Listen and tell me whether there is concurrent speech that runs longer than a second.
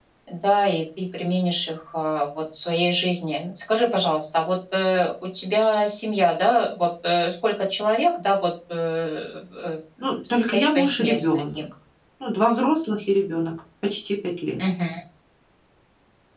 Yes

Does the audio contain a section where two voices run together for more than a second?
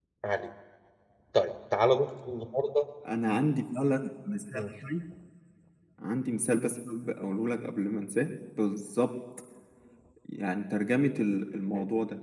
No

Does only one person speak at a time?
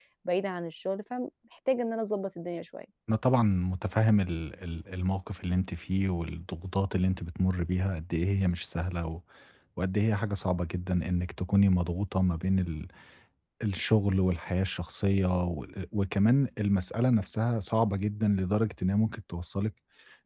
Yes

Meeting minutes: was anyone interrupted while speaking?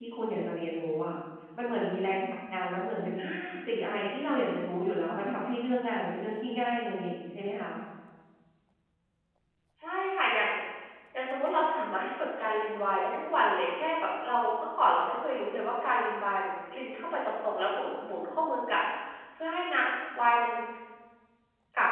No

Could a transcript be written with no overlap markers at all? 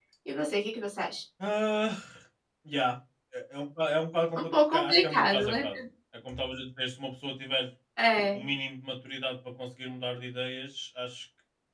No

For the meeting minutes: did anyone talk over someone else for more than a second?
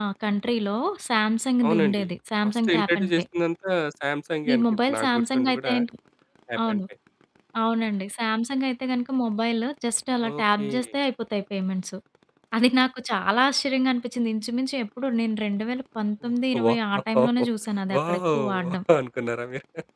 Yes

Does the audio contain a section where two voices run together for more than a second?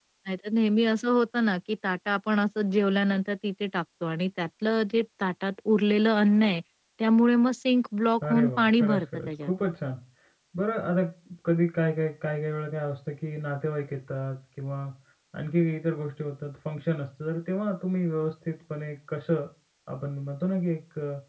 Yes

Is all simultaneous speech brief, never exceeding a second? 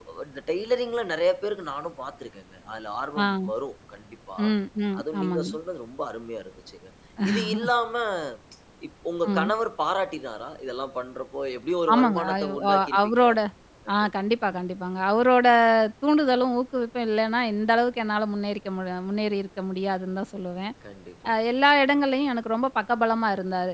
No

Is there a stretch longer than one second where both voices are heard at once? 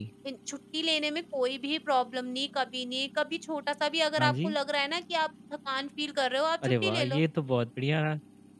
No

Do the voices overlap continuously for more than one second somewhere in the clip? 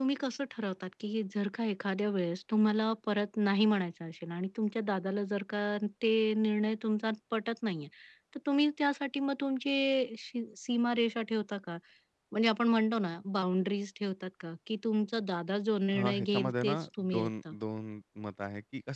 Yes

